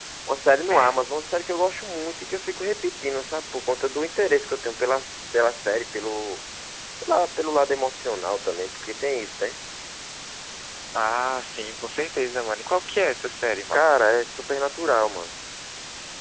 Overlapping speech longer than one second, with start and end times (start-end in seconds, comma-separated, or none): none